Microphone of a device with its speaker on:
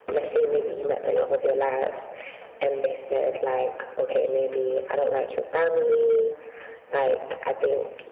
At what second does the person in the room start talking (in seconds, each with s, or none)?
none